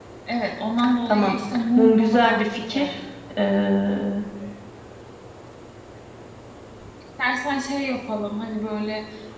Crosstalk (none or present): present